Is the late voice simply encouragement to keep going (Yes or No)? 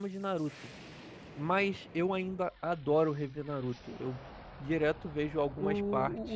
No